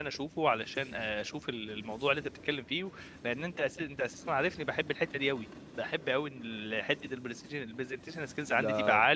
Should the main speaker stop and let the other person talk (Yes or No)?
Yes